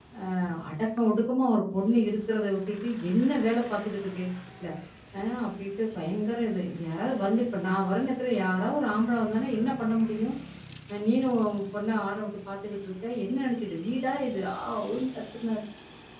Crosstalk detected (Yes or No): No